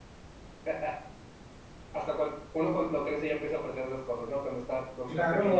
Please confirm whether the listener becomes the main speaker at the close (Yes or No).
Yes